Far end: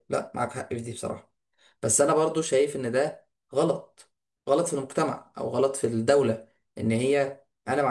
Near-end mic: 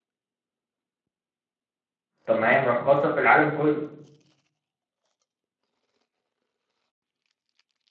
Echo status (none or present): none